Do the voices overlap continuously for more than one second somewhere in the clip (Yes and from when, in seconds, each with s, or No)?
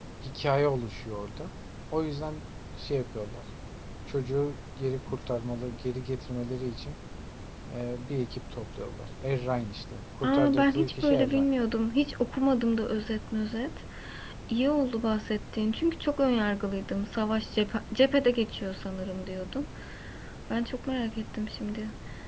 Yes, from 10.2 s